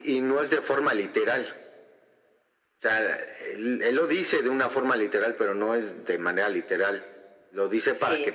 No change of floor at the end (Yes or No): Yes